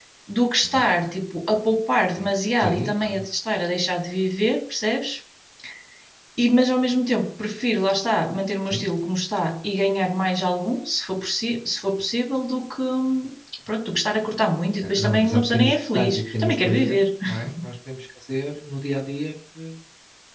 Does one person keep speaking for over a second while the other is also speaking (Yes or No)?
Yes